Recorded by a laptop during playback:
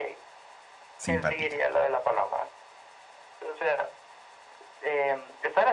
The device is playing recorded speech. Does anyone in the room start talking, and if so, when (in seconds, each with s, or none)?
1.0 s